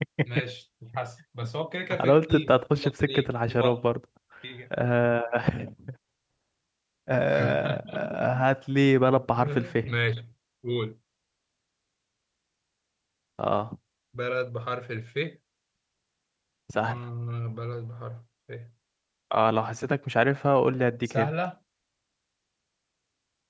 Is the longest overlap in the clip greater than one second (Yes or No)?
Yes